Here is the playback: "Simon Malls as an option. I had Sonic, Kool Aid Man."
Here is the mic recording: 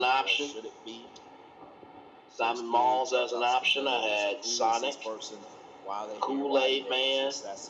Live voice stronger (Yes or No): No